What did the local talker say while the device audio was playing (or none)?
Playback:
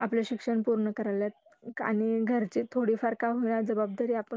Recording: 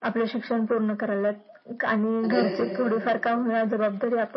म्हणजे